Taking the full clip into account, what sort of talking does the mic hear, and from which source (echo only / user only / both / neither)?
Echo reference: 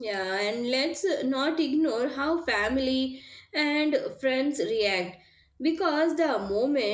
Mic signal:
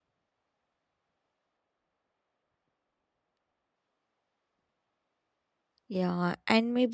user only